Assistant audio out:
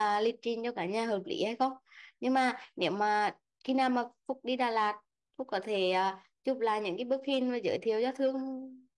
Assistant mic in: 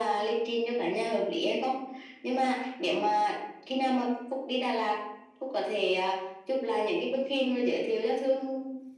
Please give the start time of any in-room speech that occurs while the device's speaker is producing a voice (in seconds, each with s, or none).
none